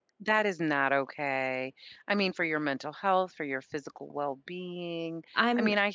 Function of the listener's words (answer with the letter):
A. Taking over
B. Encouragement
B